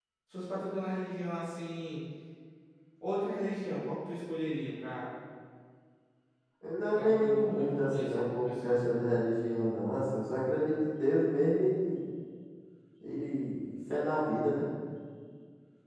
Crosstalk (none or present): present